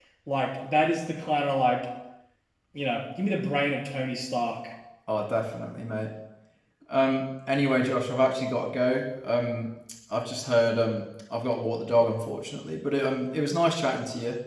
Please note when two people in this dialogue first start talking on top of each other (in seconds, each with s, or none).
none